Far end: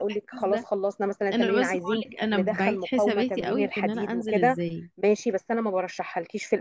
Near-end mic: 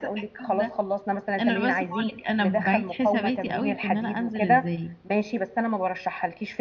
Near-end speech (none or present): none